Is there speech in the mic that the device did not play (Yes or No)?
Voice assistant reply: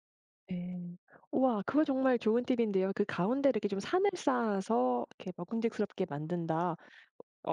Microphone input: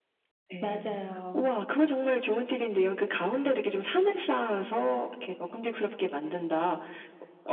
Yes